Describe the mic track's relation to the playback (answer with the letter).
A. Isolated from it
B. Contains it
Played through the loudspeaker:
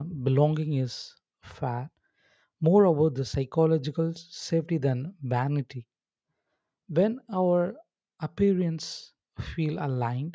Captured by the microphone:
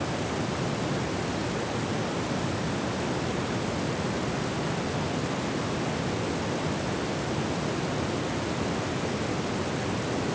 A